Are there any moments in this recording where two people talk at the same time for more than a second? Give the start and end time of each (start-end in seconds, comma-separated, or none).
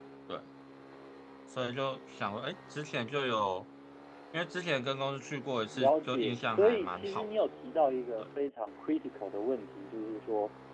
5.7-7.3